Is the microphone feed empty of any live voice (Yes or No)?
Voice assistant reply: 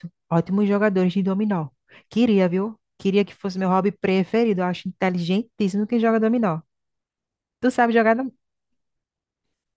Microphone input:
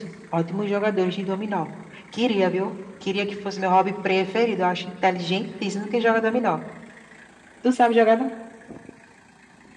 Yes